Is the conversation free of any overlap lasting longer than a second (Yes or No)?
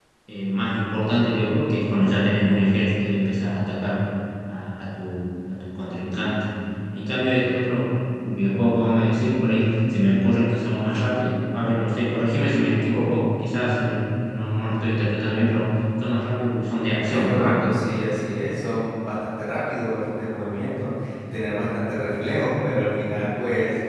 Yes